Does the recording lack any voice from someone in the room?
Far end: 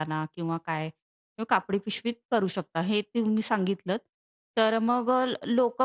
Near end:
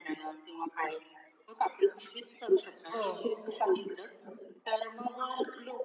No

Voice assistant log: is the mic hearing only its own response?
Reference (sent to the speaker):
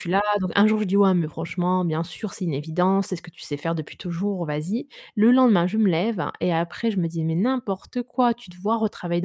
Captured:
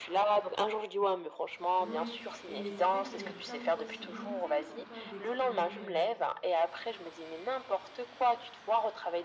No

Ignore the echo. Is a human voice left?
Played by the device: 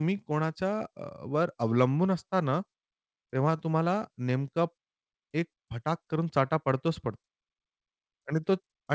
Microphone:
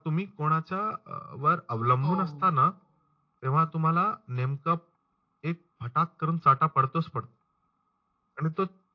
Yes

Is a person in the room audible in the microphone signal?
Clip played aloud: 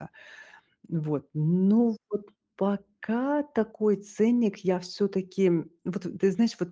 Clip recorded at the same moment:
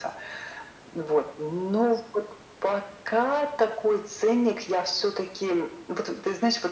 No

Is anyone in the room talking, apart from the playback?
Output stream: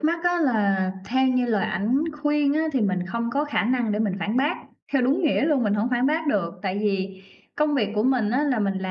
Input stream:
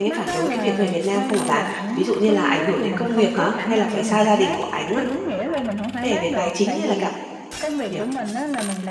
Yes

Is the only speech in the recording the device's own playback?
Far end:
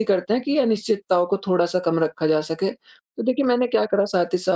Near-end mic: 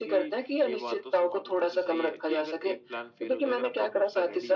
No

